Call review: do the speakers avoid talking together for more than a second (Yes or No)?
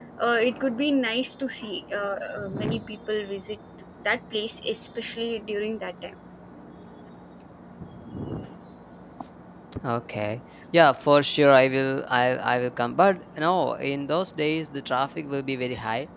Yes